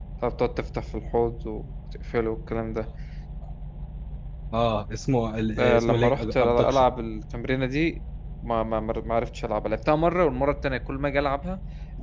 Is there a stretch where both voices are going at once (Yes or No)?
Yes